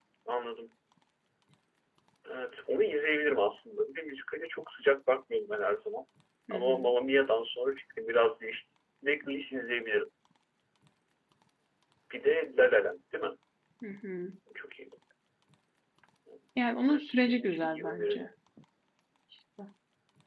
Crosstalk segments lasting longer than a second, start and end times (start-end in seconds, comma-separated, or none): 16.9-18.3